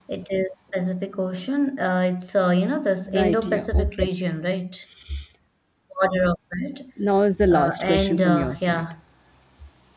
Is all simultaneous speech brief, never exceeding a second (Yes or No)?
No